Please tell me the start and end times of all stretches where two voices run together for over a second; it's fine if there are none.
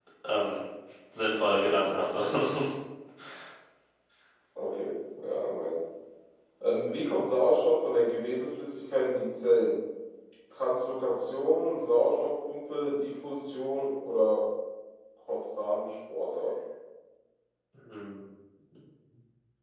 none

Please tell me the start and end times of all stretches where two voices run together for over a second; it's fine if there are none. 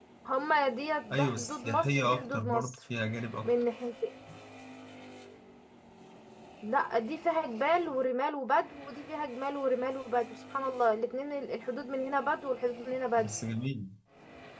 1.1-2.8

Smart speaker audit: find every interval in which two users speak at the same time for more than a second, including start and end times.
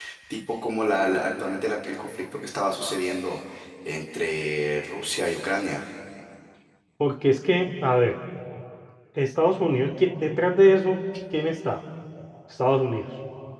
none

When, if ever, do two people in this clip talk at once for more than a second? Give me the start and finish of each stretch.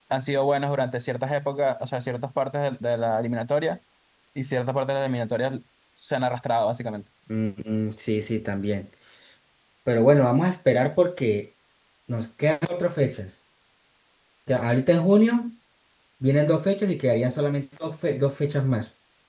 none

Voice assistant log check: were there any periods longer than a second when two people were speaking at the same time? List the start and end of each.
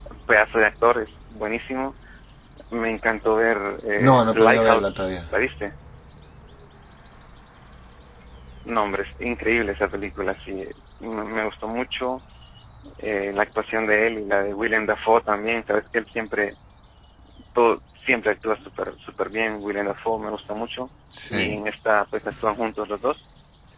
4.0-5.3

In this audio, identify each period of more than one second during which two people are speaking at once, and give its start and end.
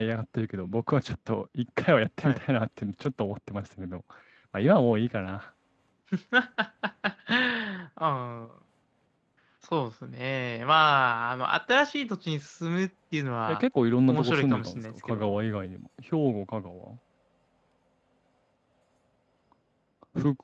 14.1-15.3

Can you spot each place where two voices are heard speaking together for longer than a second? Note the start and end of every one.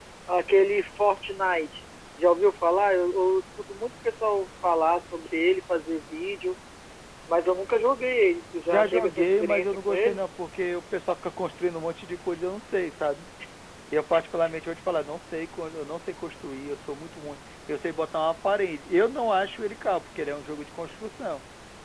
8.7-10.2

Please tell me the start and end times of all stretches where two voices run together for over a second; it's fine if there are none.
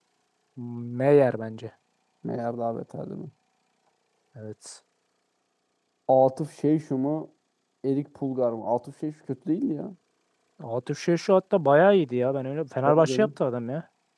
none

